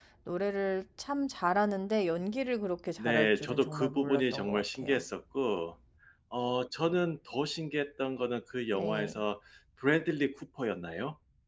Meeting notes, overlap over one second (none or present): present